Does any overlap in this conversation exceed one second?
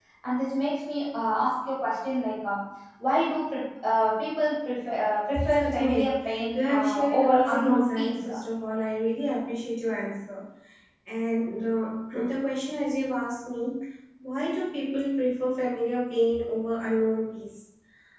Yes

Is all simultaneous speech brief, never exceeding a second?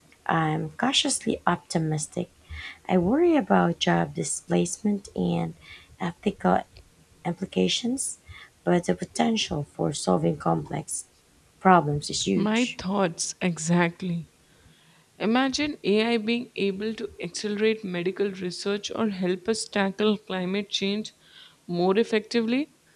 Yes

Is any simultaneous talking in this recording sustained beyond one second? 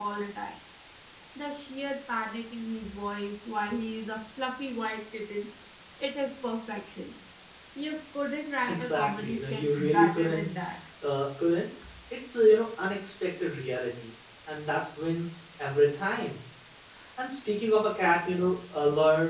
Yes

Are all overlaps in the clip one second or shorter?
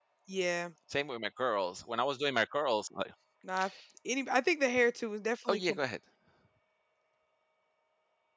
Yes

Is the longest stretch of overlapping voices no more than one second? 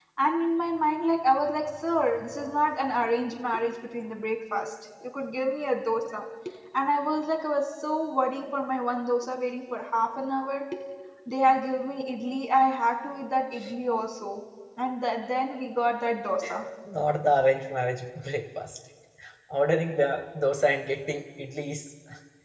Yes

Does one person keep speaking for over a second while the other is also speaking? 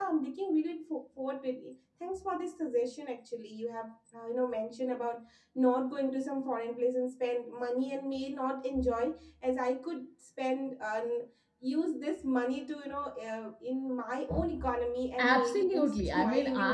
Yes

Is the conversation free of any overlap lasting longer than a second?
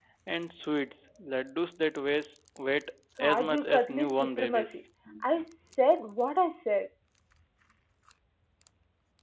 No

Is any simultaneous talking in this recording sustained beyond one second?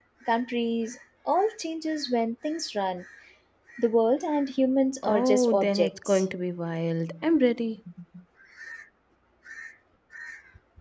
Yes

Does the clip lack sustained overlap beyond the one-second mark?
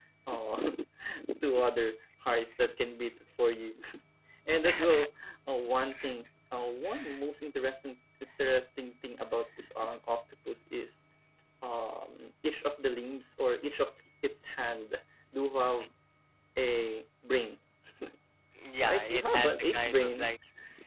No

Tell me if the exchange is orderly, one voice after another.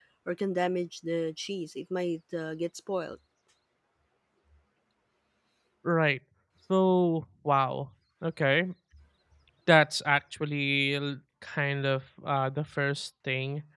Yes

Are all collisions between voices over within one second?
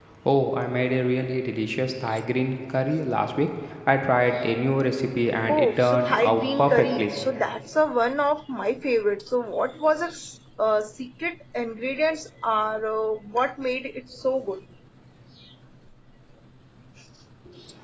No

